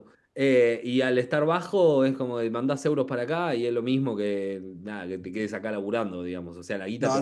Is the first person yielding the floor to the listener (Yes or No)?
Yes